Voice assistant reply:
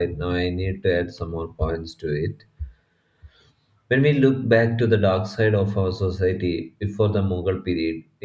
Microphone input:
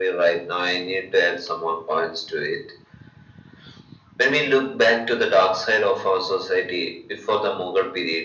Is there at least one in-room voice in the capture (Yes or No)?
No